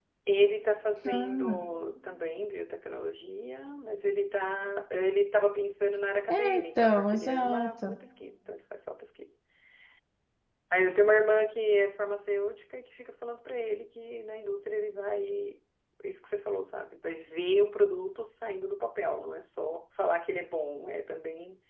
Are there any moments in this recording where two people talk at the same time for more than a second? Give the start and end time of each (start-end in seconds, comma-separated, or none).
6.3-8.0